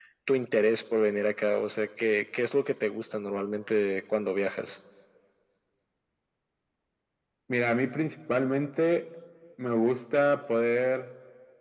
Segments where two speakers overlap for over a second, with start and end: none

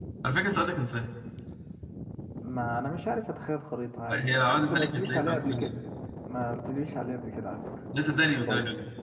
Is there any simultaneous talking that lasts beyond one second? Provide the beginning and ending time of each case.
4.1-5.8

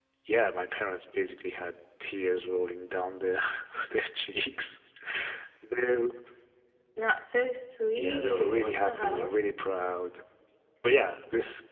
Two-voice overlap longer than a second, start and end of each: 8.0-9.3

